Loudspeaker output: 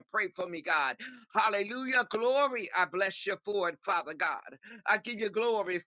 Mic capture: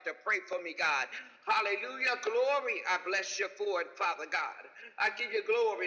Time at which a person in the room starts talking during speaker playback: none

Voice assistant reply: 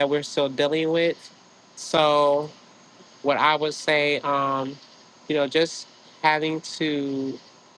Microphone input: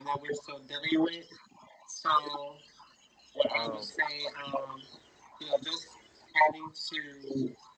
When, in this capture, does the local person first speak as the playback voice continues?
3.5 s

